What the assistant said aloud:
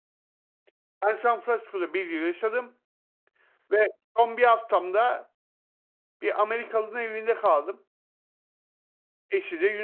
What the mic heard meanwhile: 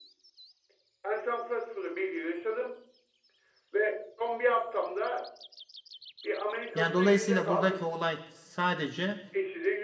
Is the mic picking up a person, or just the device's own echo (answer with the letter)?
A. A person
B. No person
A